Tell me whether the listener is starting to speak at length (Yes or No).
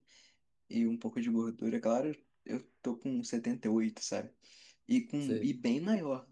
No